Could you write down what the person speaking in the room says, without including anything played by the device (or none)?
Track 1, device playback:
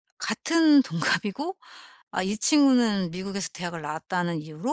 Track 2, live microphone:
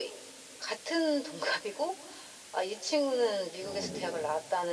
어 네네.